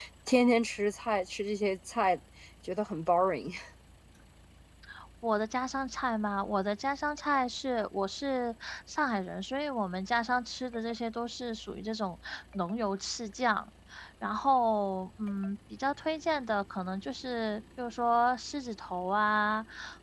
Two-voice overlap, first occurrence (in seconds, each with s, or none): none